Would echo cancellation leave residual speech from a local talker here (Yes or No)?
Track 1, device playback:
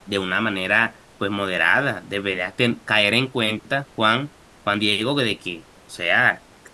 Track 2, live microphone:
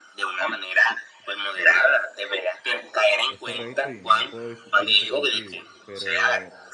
Yes